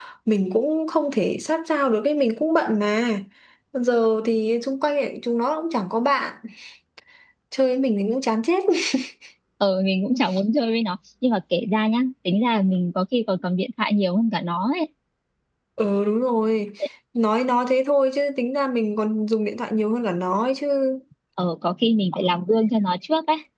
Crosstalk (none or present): none